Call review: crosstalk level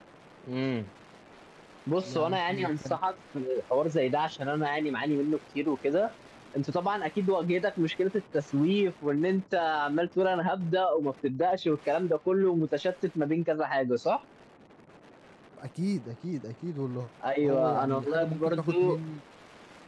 present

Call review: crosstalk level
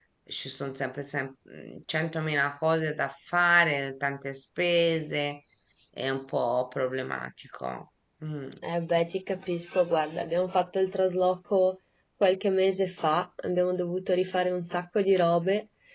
none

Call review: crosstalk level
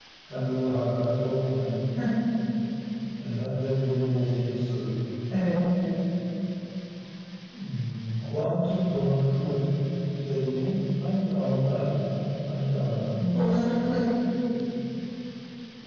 none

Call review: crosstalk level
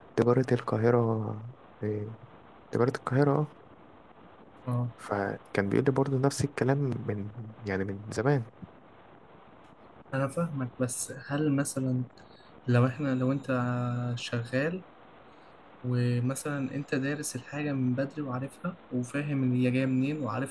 none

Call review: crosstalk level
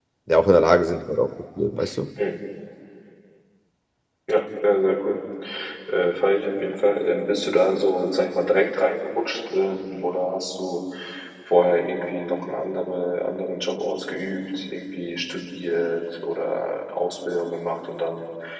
none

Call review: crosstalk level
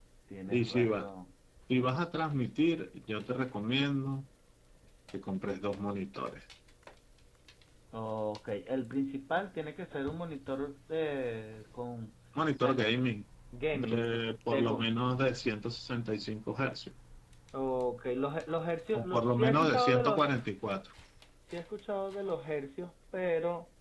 present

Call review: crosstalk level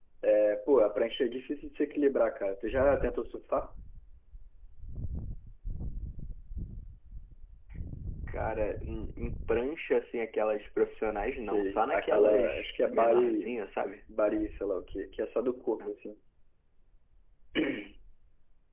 present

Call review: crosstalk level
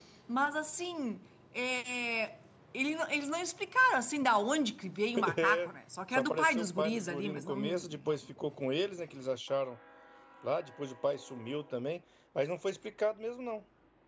present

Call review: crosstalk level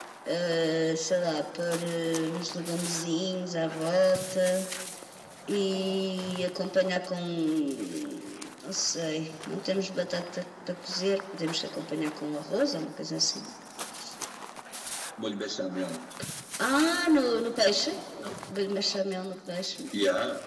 none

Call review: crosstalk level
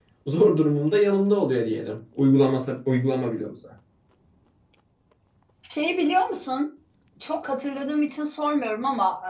none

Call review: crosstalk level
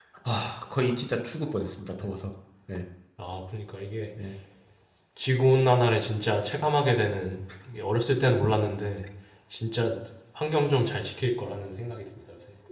none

